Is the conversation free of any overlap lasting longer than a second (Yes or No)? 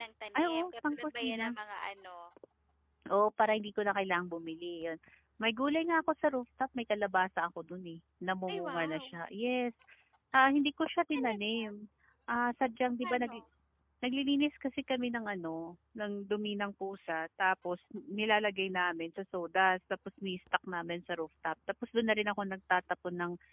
No